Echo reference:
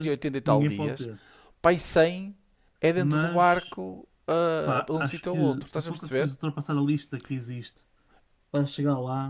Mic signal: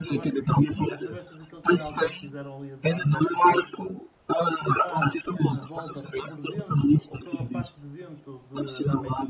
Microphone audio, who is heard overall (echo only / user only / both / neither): both